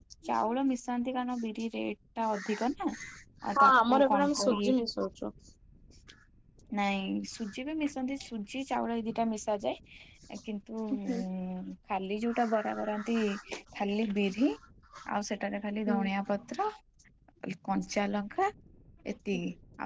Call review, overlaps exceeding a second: present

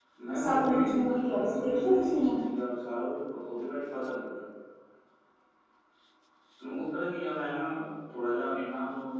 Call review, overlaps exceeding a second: present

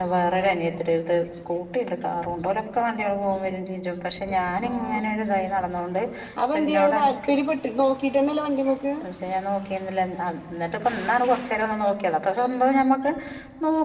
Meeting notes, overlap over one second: none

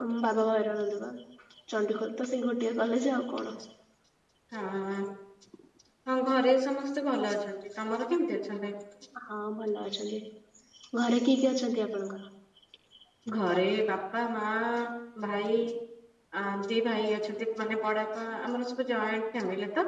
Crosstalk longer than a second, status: none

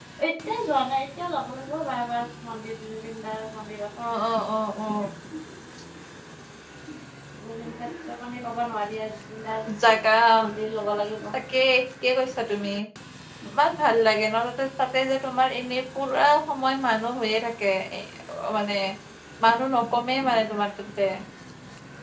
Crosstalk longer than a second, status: none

